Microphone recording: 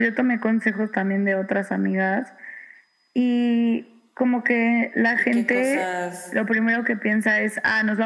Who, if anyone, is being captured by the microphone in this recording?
both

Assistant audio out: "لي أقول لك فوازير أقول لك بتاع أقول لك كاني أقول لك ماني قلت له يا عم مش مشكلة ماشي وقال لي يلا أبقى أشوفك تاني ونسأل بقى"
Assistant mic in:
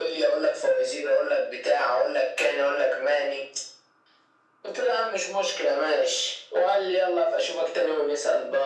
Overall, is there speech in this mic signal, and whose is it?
echo only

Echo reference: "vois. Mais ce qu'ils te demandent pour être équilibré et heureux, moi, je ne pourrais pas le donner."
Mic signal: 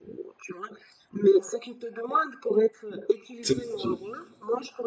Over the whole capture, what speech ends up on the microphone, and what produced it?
both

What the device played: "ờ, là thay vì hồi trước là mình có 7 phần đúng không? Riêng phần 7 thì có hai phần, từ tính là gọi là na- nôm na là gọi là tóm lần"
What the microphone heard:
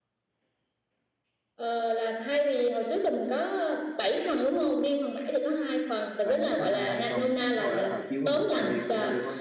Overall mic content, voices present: both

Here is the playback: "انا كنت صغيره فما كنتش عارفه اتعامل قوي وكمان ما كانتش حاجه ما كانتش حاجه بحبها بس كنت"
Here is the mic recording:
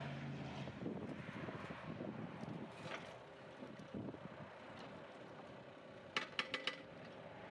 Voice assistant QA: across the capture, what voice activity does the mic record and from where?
neither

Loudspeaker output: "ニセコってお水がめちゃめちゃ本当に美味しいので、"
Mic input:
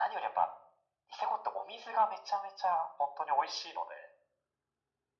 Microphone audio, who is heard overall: echo only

